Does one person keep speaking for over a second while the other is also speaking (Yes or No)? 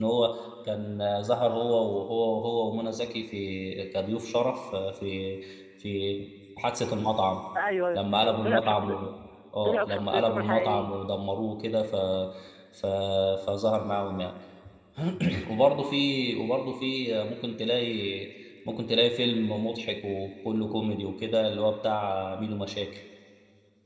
Yes